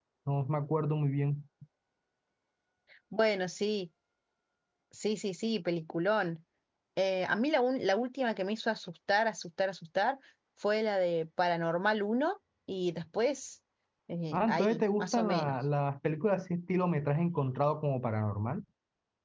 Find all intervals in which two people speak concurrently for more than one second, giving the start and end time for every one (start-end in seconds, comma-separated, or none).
14.3-15.6